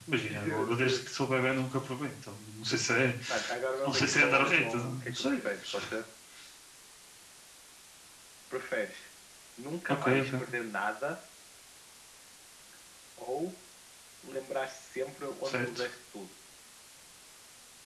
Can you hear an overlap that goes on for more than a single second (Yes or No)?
Yes